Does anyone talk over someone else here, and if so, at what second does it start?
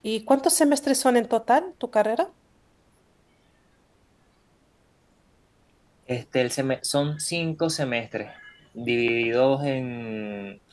none

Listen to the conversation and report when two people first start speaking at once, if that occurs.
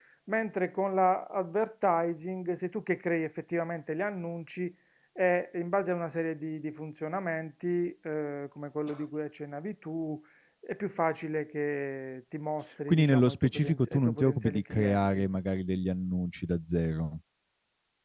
13 s

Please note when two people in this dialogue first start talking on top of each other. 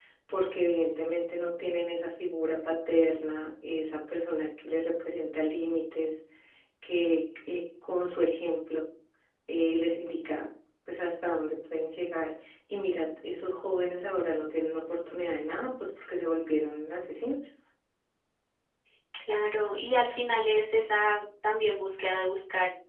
none

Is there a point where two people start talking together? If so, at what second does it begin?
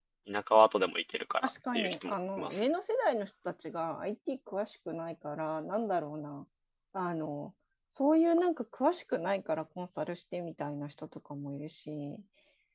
1 s

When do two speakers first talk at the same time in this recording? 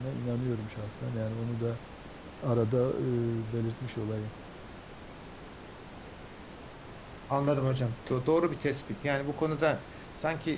none

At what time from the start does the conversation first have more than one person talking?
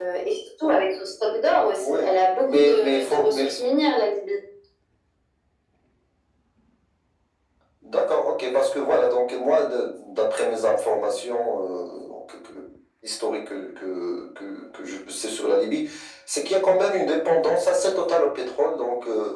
2 s

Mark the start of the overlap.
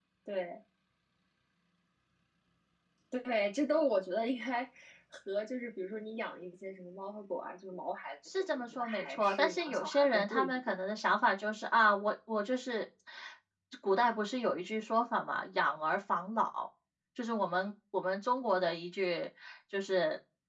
9 s

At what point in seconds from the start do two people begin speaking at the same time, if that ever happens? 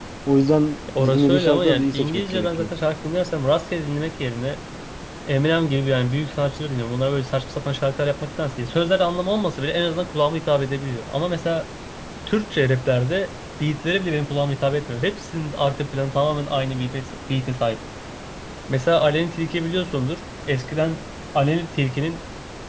1 s

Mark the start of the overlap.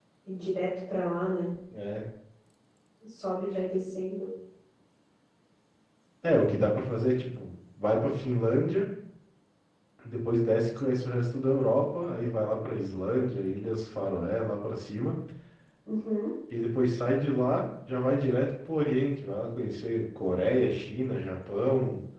none

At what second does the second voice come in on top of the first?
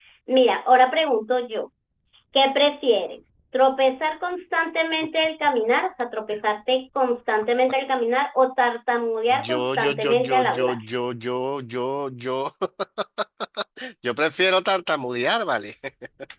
9 s

